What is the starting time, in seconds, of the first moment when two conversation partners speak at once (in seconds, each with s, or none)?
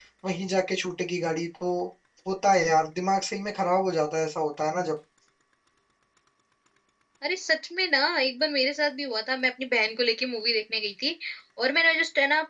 none